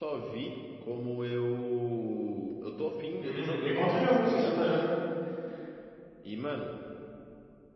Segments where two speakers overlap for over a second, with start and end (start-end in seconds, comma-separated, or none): 3.2-4.6